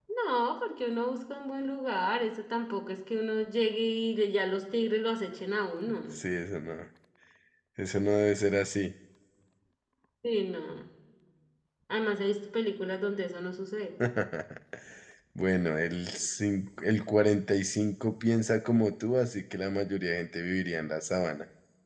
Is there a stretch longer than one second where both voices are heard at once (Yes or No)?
No